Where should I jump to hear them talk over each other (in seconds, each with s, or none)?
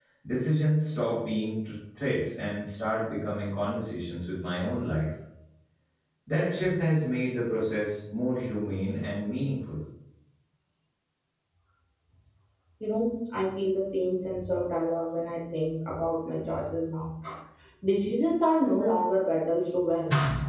none